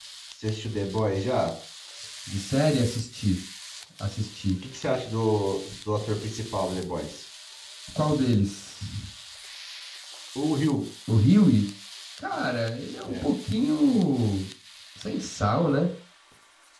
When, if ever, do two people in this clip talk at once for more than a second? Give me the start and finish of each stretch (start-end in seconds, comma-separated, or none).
none